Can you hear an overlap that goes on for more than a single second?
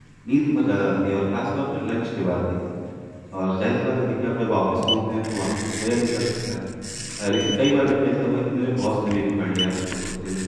No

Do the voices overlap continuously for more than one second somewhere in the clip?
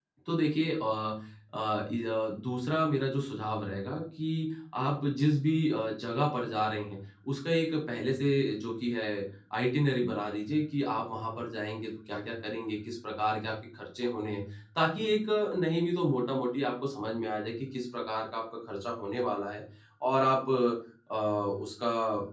No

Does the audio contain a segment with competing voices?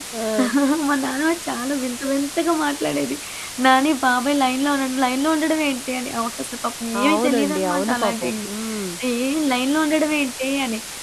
Yes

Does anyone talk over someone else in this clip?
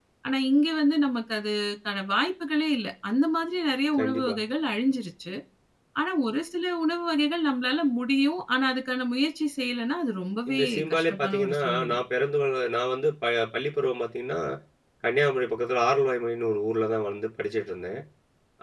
Yes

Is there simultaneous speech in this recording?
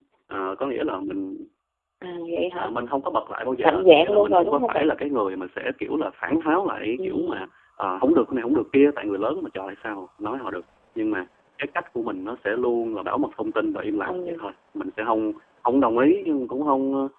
Yes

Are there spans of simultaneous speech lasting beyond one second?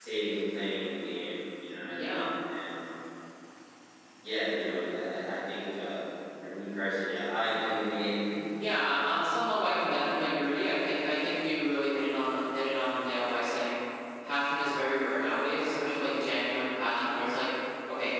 No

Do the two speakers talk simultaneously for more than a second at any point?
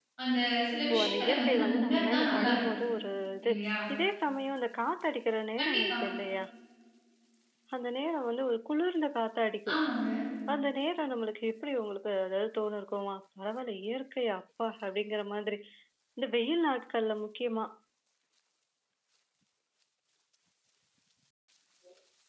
Yes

